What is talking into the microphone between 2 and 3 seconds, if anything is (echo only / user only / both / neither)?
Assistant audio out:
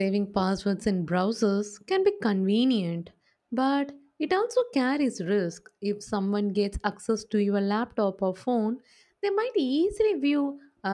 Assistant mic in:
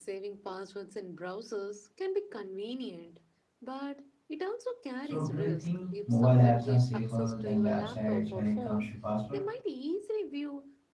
echo only